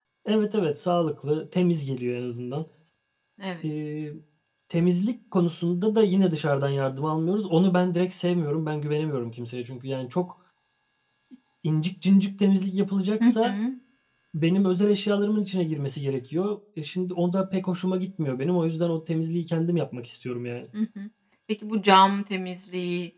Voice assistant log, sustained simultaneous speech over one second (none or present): none